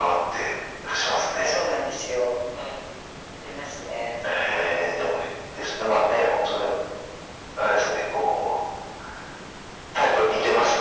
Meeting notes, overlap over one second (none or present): none